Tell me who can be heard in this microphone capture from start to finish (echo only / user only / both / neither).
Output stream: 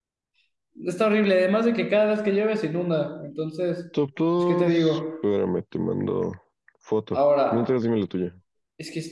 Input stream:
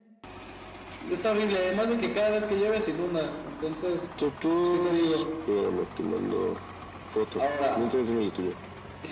echo only